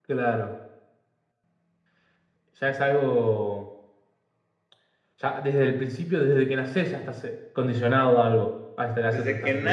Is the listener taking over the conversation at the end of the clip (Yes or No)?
Yes